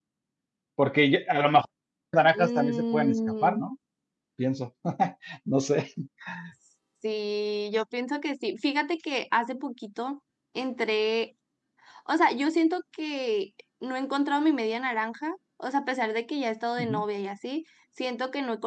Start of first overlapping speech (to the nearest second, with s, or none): 2 s